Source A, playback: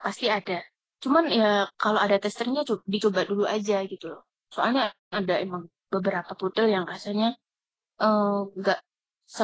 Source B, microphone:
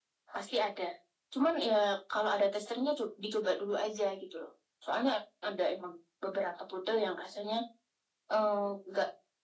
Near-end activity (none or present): none